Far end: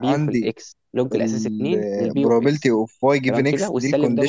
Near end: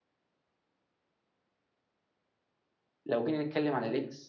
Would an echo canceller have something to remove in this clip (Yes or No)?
No